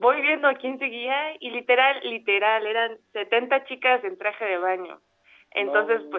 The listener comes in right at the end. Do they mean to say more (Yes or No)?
No